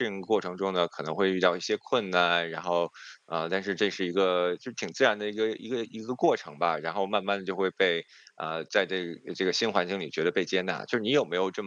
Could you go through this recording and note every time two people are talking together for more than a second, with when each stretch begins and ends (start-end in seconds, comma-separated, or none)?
none